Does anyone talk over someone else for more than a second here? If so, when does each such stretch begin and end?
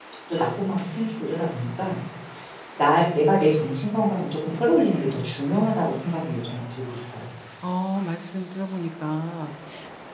none

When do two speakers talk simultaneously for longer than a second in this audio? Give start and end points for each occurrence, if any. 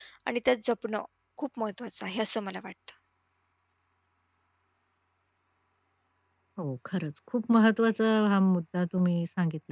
none

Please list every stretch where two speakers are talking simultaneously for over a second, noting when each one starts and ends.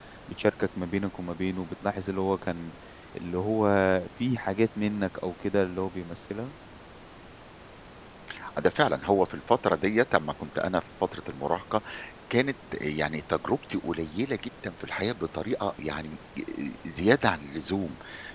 none

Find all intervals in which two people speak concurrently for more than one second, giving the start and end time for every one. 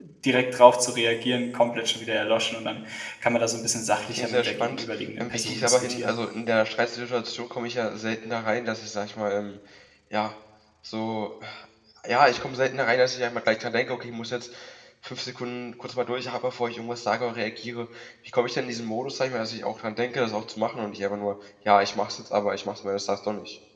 4.1-6.1

